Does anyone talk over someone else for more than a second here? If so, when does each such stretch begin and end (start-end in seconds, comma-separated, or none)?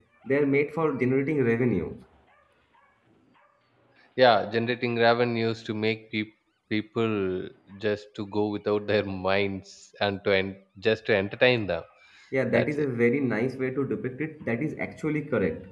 none